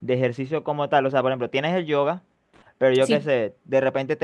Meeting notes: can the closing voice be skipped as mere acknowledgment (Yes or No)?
Yes